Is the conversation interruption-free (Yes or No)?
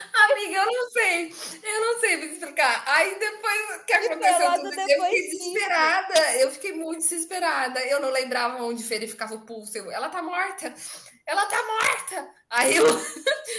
No